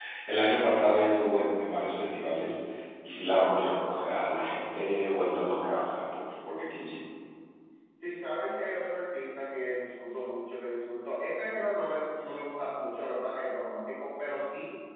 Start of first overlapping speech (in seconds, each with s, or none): none